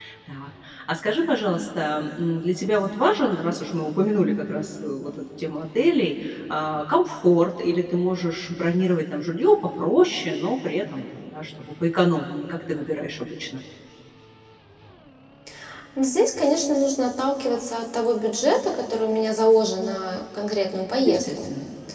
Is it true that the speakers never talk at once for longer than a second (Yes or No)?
Yes